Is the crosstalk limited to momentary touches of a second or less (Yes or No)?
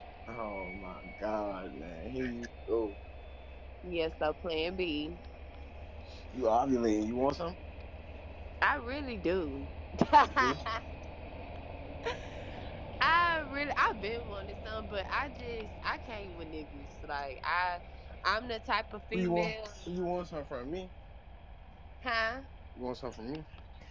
Yes